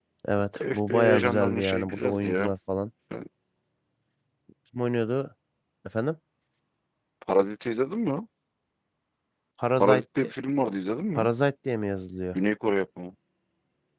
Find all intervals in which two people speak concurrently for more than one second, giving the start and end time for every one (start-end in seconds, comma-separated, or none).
0.6-2.5